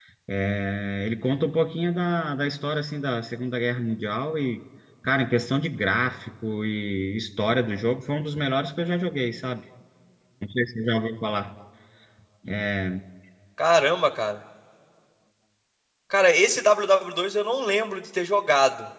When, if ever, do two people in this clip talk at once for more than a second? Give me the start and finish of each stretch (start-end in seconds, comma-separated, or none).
none